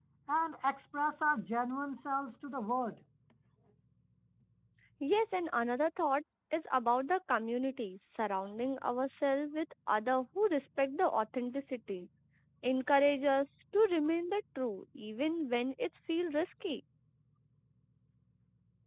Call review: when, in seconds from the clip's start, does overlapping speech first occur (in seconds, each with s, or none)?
none